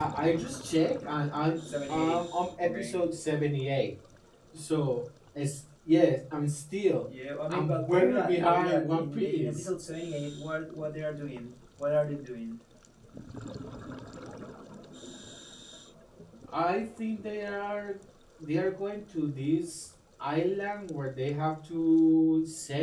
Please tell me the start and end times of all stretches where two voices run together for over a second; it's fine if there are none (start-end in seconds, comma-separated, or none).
7.5-9.7